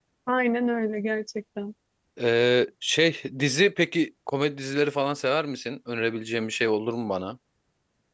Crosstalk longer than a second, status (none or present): none